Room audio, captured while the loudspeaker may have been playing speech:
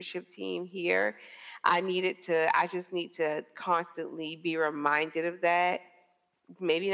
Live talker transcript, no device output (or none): none